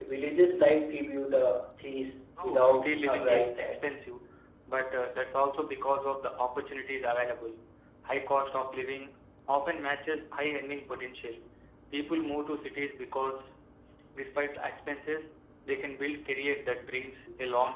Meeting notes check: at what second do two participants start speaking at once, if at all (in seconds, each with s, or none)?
2.4 s